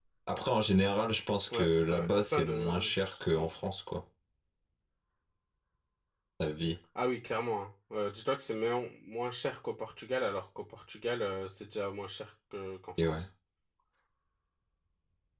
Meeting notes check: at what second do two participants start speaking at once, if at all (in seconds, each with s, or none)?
1.5 s